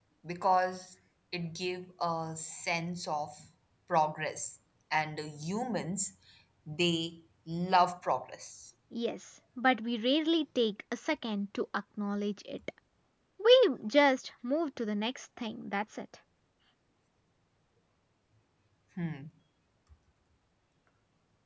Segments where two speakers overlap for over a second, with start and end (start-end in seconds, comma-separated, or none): none